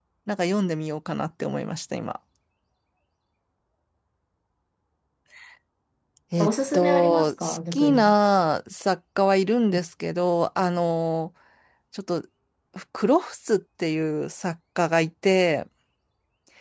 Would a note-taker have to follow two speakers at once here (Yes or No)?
Yes